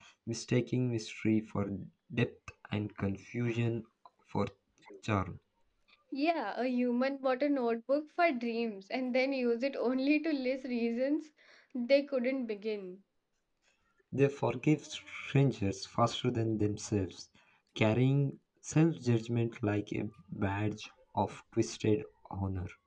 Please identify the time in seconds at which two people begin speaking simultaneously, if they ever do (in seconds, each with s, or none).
none